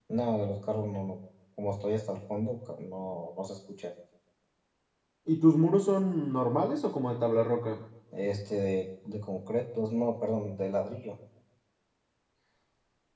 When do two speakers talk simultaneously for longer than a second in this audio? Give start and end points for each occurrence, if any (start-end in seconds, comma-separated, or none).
none